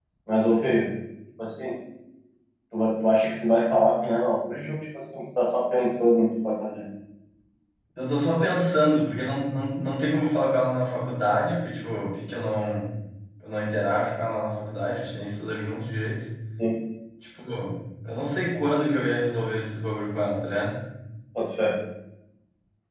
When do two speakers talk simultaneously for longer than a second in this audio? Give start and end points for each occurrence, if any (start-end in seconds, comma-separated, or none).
none